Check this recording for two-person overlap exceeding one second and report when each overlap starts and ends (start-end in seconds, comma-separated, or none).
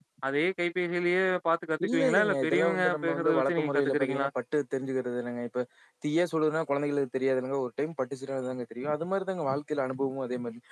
1.9-4.3